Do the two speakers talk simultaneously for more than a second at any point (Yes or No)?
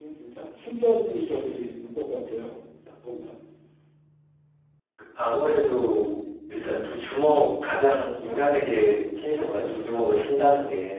No